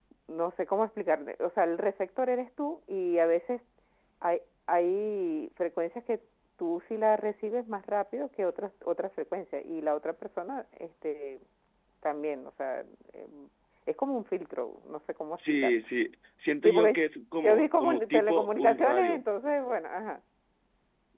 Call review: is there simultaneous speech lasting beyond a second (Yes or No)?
Yes